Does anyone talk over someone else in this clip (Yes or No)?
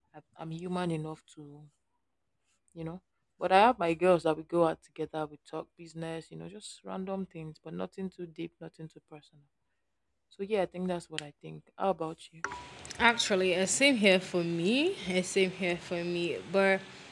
No